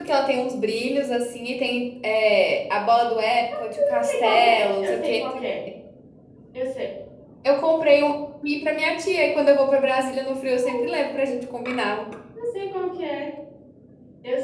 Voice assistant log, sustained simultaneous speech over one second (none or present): present